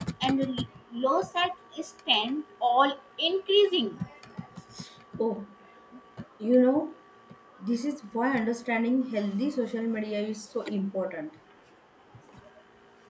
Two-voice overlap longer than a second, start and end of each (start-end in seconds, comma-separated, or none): none